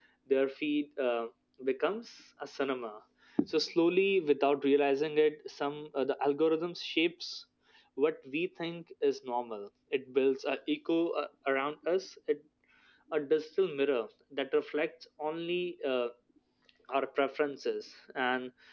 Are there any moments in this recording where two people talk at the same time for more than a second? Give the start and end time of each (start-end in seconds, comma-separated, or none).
none